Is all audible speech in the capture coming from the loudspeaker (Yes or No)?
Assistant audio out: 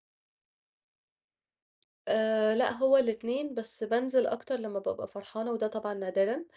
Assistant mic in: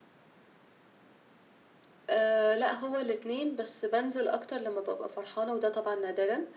Yes